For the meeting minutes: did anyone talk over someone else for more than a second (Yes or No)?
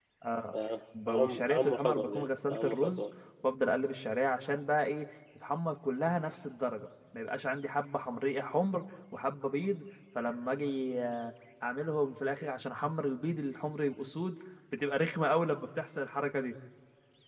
Yes